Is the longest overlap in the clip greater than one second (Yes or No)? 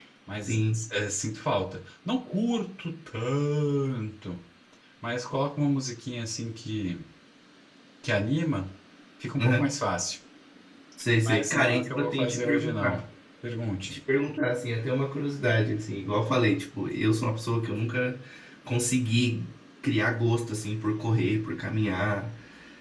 Yes